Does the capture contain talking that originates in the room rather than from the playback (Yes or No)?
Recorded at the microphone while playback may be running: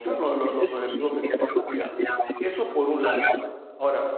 Yes